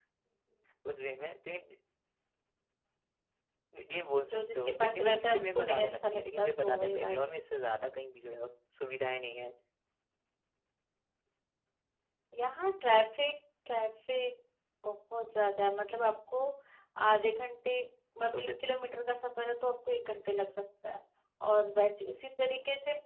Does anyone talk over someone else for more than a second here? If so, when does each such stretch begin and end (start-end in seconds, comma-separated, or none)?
4.2-7.3